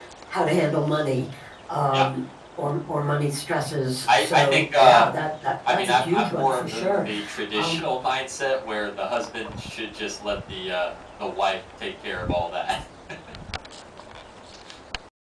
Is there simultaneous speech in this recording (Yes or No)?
Yes